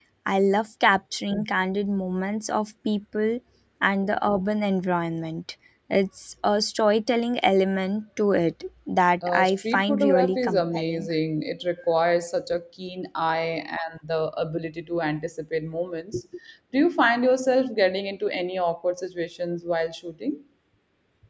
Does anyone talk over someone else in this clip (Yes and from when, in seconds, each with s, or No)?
Yes, from 9.2 s